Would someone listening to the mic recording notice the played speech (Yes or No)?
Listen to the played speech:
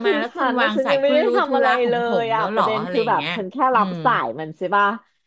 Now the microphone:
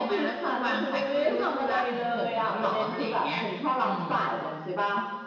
Yes